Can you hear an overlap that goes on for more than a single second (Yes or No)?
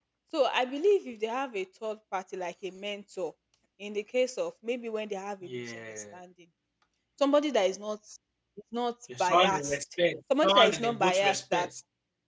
Yes